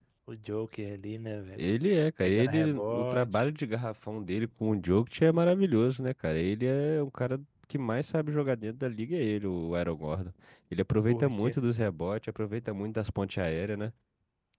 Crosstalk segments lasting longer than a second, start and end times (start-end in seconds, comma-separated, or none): 2.2-3.5